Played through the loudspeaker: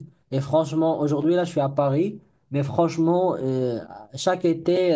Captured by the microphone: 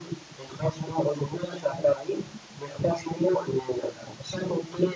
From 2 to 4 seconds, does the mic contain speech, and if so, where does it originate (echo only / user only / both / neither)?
echo only